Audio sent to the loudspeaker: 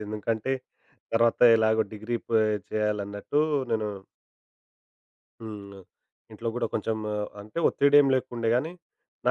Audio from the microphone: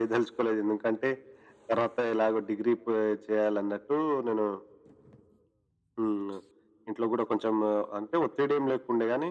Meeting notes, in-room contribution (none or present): none